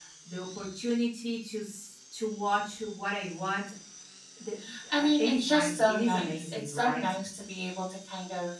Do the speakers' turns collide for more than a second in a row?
Yes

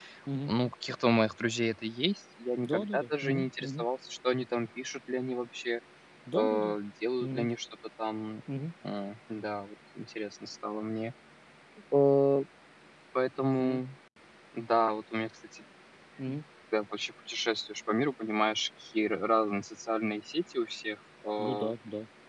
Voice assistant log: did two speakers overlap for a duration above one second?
Yes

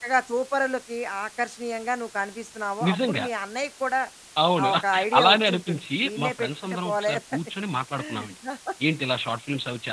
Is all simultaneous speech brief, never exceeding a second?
No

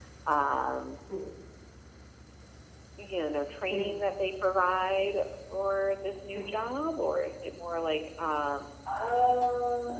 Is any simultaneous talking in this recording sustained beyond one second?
No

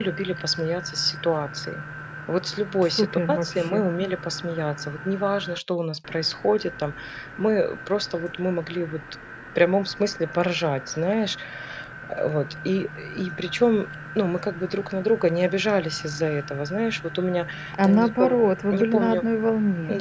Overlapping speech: Yes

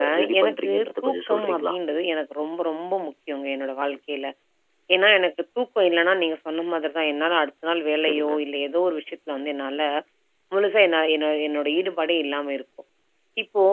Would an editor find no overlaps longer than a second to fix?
No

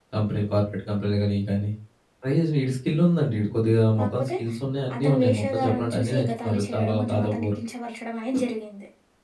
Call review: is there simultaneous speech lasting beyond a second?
Yes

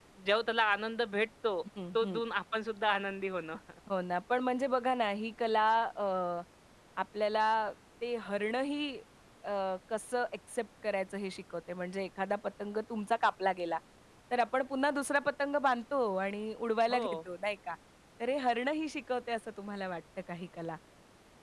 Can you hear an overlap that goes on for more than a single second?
No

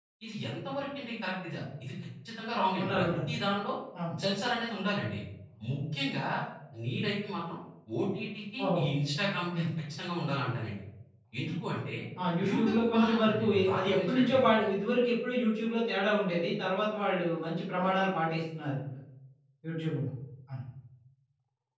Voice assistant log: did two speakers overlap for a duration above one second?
Yes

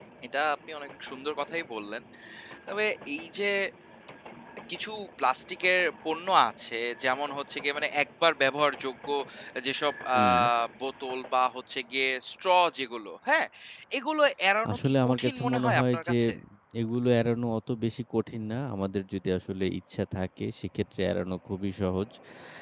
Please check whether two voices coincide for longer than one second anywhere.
Yes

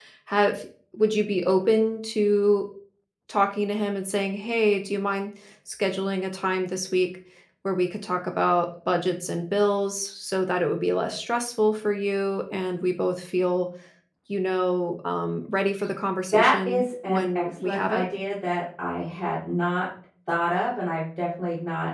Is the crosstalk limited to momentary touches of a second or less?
No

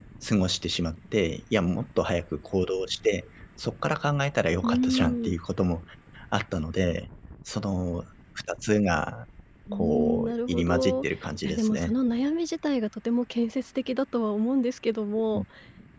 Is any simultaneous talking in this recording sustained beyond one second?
Yes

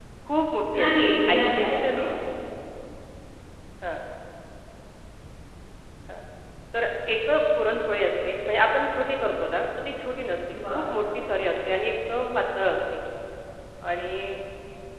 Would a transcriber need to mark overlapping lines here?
Yes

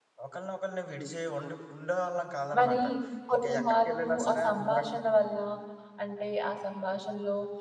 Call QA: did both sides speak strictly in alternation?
No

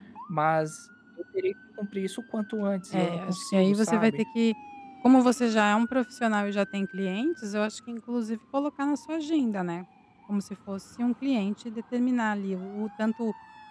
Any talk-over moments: Yes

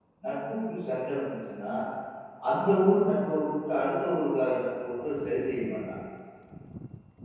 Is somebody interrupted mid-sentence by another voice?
No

